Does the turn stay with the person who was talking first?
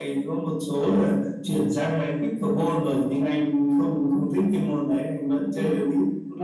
No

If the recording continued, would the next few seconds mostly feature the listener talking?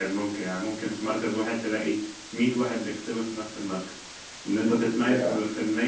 No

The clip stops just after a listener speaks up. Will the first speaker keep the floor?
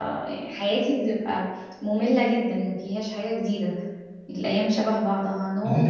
No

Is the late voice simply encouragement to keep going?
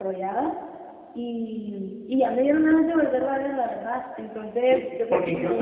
No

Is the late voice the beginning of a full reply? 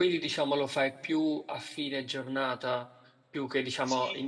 Yes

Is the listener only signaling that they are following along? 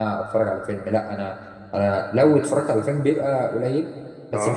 Yes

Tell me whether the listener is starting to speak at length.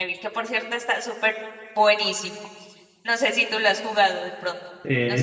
Yes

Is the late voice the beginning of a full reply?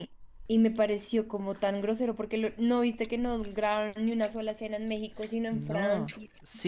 Yes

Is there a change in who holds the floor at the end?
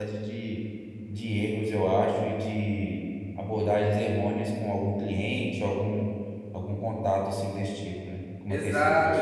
Yes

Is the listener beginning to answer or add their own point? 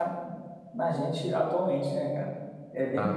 Yes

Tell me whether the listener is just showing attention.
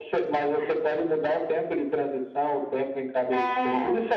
No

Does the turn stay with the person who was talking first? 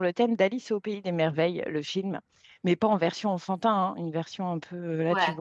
Yes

